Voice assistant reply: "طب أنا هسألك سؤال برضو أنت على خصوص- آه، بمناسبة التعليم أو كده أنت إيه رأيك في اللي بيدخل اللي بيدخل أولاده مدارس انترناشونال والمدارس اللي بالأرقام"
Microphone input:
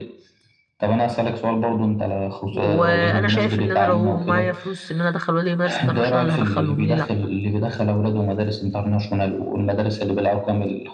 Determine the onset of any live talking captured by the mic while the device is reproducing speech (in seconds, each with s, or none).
2.5 s